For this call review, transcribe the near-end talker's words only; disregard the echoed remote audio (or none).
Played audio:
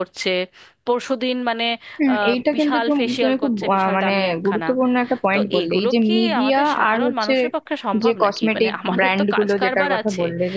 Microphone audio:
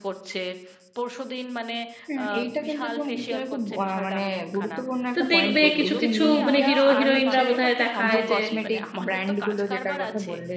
তো দেখবে কিছু কিছু মানে হিরো হিরোইনরা বোধহয় দেখায় যে